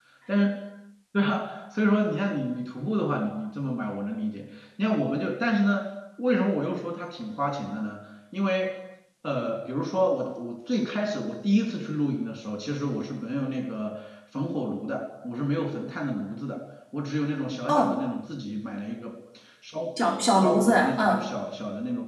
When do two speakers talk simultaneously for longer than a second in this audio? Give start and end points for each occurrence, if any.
20.0-21.2

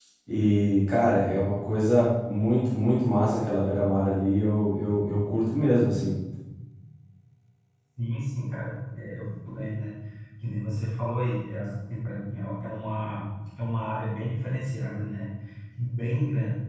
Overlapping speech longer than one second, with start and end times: none

